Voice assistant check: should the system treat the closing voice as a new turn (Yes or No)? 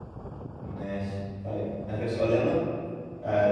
No